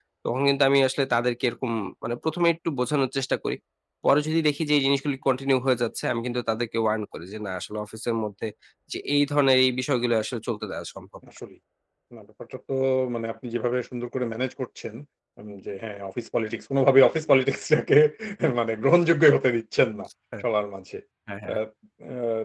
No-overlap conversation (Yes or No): Yes